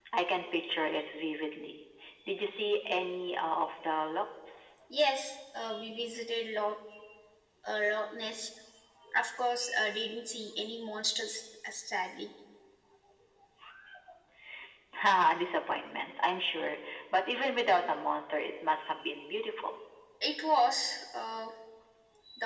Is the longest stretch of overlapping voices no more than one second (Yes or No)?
Yes